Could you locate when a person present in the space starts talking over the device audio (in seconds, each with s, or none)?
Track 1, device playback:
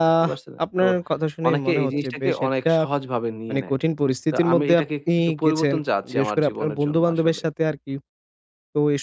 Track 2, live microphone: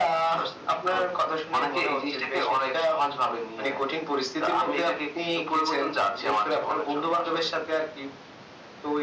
none